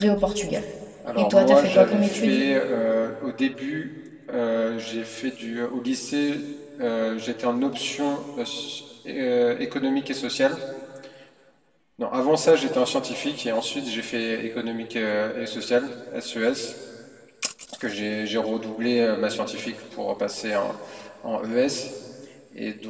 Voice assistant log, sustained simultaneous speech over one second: present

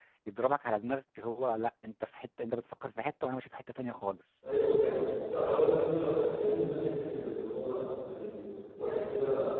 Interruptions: none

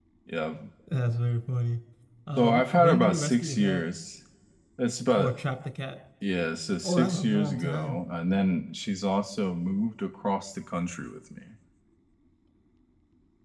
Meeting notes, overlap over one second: present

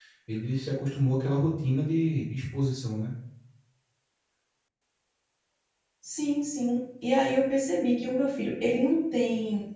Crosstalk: none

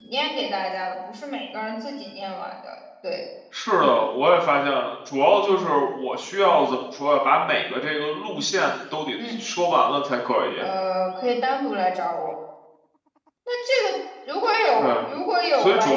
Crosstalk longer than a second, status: none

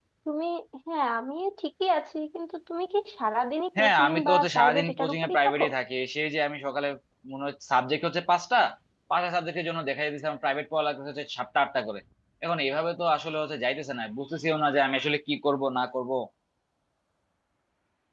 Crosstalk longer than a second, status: present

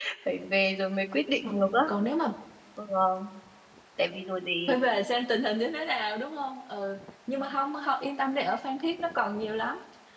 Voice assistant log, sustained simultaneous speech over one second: none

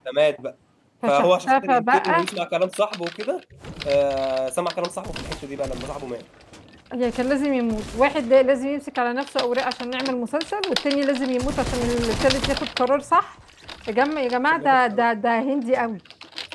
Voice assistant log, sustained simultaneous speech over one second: present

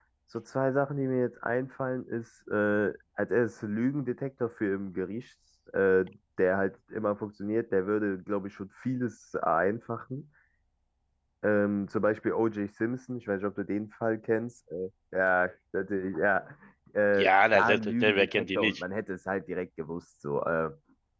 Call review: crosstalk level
present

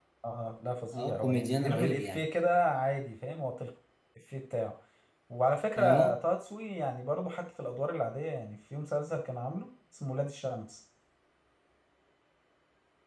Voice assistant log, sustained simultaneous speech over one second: present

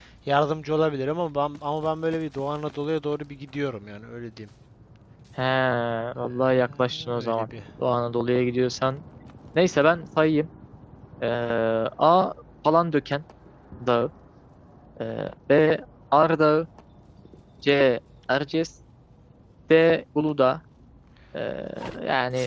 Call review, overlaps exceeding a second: present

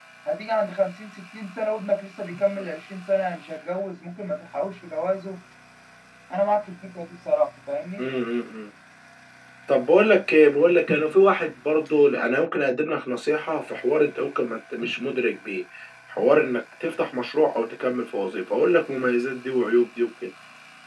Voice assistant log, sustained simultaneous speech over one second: none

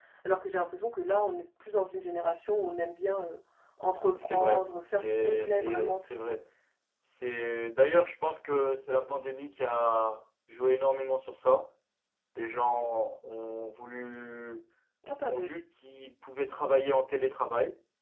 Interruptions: present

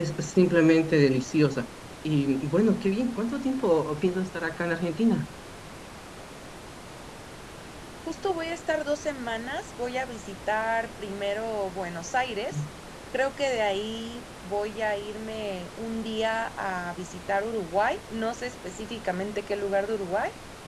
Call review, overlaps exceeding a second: none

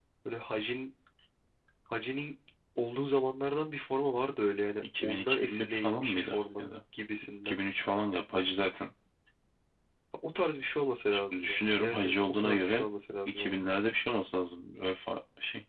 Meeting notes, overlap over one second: present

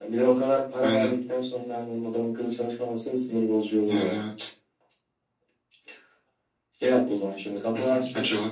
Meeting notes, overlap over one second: none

